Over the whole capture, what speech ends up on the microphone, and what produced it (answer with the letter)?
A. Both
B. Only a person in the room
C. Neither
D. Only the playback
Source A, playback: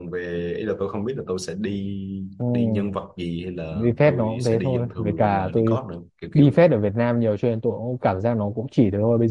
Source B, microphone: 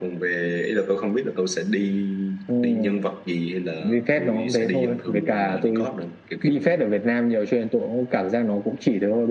D